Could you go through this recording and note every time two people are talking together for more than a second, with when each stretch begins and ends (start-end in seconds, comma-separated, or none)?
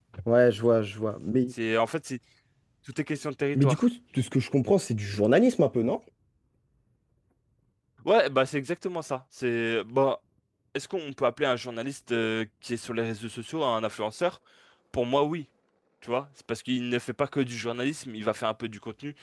none